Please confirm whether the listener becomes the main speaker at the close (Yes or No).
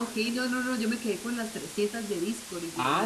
Yes